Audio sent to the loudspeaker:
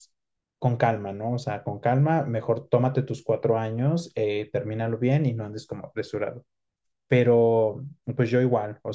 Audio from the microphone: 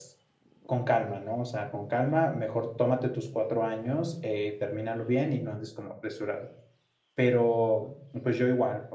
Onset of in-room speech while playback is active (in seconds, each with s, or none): none